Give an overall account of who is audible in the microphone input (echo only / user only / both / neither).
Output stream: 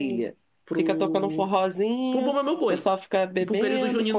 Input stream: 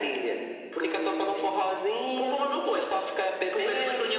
echo only